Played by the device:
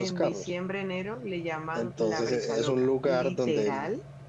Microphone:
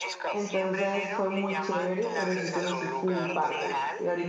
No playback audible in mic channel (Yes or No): No